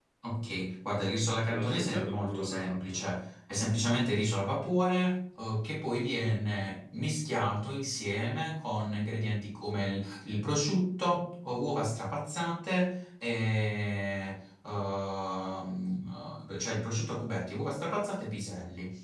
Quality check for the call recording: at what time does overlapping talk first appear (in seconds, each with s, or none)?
1.5 s